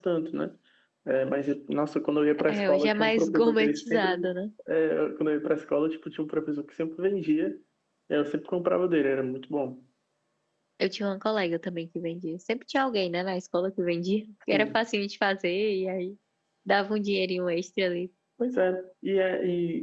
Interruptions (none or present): present